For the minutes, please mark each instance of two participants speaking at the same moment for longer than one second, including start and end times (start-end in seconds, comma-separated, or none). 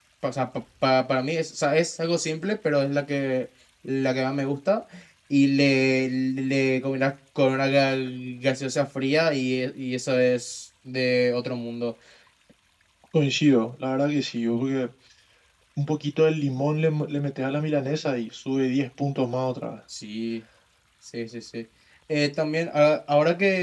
none